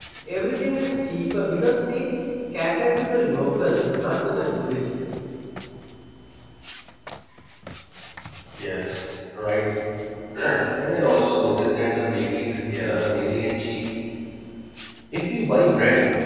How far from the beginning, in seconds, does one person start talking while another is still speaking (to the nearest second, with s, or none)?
none